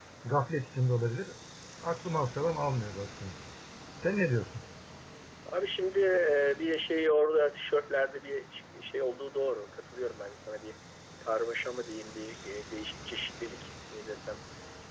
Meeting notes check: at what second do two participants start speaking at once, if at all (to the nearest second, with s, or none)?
none